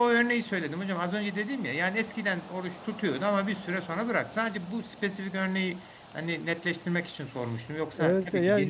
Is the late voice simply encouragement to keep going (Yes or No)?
No